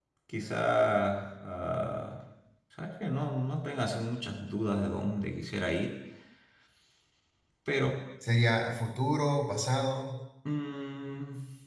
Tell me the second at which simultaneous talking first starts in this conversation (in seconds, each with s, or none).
none